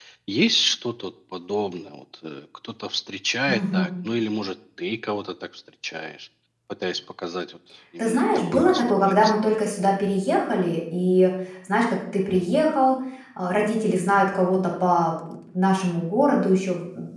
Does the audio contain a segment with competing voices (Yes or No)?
Yes